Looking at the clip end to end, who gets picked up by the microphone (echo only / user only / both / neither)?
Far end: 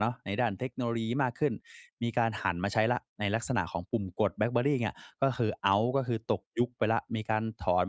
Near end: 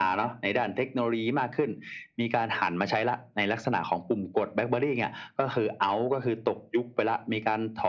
echo only